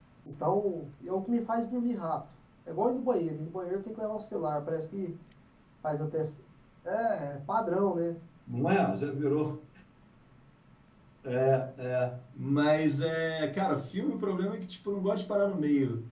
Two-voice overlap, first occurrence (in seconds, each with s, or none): none